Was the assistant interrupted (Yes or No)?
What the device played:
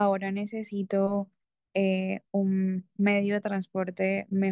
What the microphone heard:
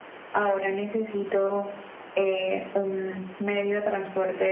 No